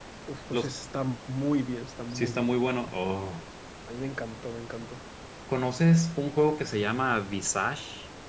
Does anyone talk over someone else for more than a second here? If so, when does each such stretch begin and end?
none

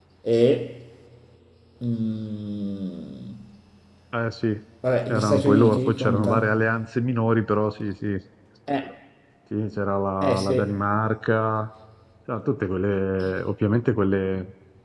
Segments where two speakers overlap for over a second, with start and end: 5.1-6.5

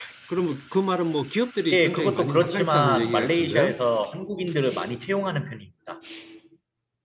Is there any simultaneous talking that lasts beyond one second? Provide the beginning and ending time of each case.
1.7-3.7

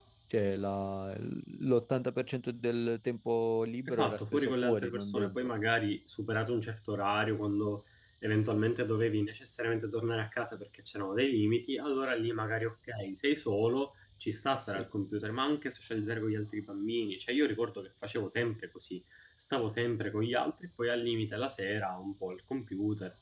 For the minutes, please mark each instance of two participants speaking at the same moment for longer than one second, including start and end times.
3.9-5.5

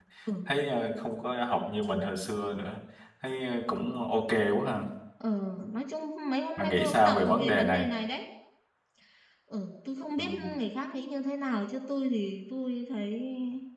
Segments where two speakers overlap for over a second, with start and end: 6.6-7.9

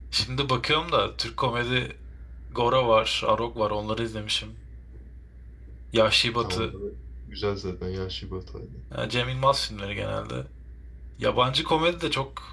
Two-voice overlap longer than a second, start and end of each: none

